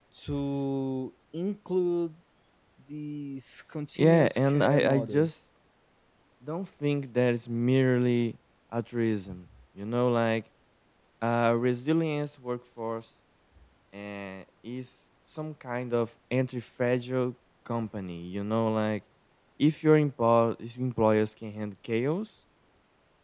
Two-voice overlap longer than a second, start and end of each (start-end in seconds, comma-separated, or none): 4.0-5.3